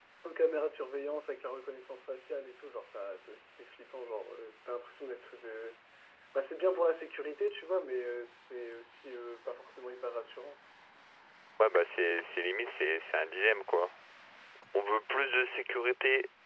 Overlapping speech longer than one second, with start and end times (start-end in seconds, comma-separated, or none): none